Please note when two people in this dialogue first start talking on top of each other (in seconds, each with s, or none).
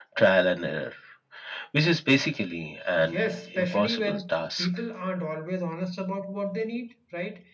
3.0 s